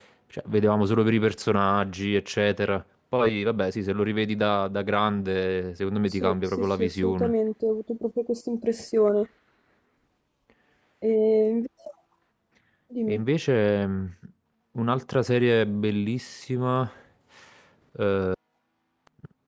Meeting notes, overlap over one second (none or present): present